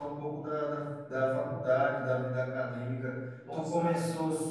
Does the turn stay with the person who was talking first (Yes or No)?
Yes